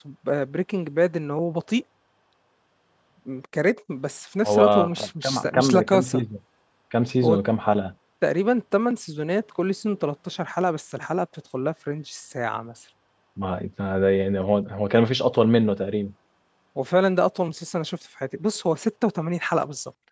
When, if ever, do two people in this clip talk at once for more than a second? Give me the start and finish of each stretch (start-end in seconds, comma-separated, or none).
4.4-6.2